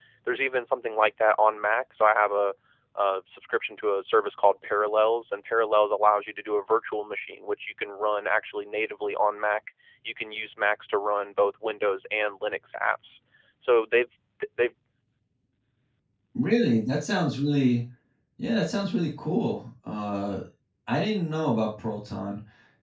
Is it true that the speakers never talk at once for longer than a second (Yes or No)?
Yes